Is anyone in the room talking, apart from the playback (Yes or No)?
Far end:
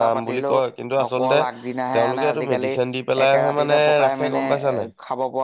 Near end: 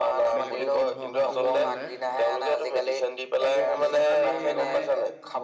Yes